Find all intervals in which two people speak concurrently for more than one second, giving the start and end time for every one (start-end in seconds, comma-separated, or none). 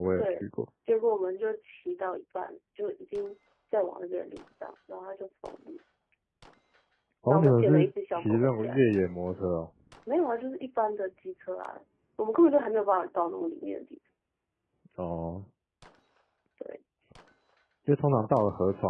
7.3-8.8